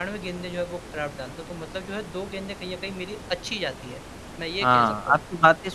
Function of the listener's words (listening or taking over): taking over